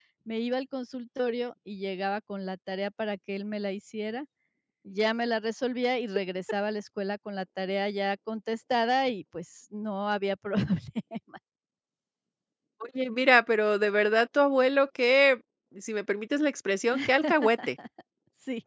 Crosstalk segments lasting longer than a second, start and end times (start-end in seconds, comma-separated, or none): none